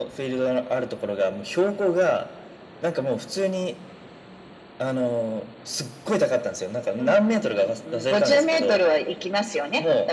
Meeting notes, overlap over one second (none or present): present